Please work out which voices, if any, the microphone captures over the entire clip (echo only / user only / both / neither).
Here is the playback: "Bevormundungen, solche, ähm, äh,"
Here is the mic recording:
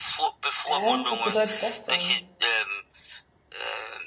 both